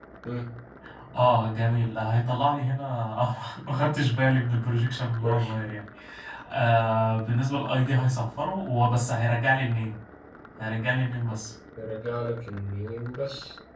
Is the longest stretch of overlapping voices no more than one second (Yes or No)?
Yes